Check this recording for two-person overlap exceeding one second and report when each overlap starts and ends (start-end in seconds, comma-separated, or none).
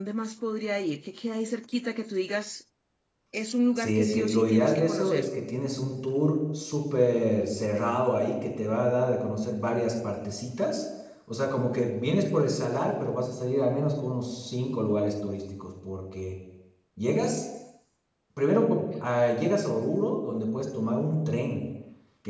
3.8-5.3